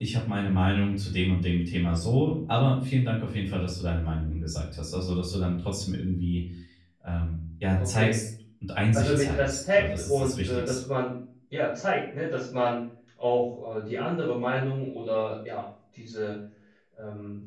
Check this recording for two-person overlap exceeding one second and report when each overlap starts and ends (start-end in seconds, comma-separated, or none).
8.9-10.8